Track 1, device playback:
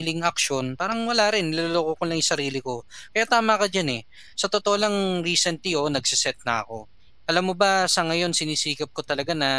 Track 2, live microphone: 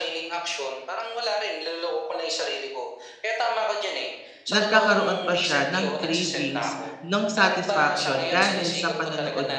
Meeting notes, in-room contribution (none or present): present